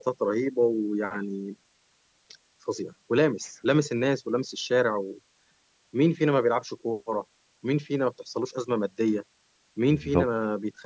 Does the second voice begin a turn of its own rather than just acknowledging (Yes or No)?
No